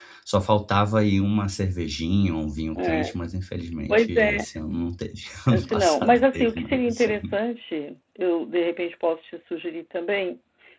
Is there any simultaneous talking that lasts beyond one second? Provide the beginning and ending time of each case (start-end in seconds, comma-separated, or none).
5.5-7.3